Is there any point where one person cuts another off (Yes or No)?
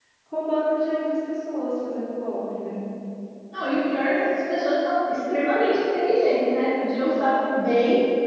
No